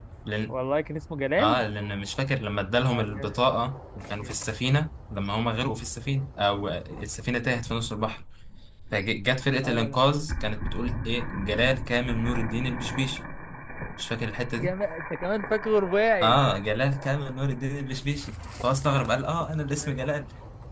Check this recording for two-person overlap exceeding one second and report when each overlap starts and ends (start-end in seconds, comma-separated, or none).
none